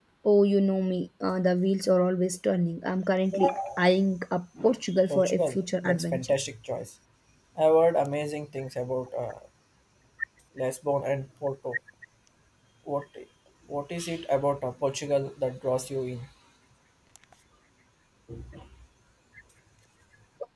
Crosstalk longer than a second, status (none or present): present